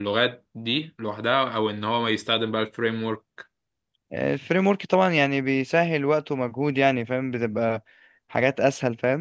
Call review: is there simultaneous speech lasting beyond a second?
No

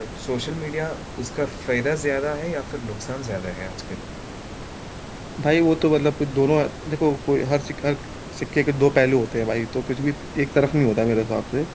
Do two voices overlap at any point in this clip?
No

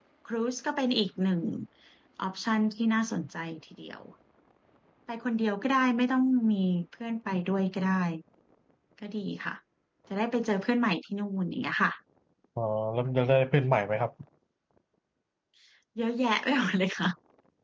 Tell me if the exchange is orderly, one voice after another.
Yes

